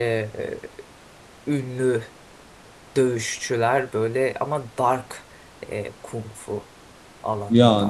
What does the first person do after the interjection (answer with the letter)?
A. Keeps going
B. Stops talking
A